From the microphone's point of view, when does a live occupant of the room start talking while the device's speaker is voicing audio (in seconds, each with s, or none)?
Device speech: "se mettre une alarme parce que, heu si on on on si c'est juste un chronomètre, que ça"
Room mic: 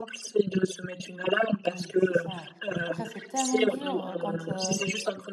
1.7 s